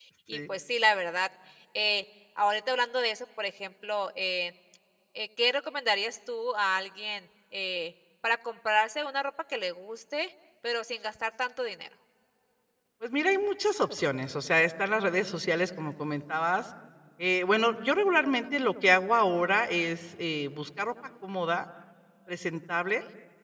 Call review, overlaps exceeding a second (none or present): none